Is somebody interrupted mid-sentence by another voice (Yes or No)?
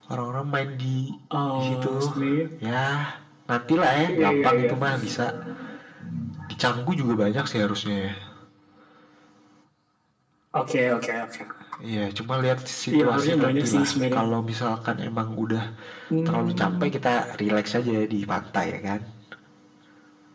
Yes